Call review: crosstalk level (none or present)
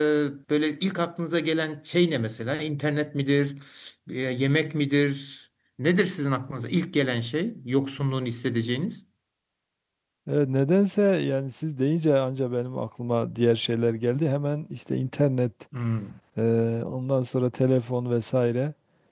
none